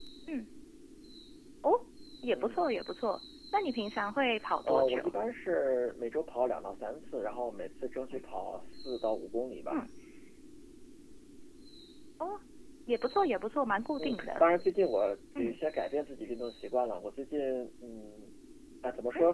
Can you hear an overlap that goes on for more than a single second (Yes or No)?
No